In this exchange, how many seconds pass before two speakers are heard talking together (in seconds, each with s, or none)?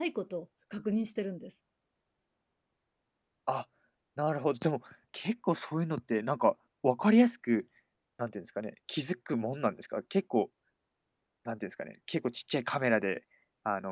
none